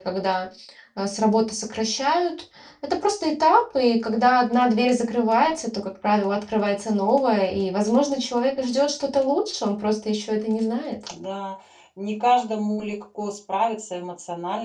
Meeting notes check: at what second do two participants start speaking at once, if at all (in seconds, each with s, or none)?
none